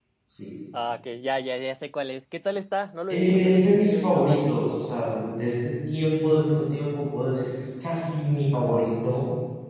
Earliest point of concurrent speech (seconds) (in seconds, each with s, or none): 3.1 s